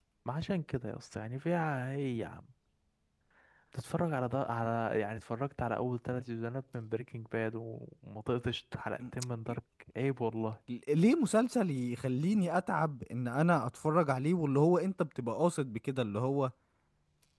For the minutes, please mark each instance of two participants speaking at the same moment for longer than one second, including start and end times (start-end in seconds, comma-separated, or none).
none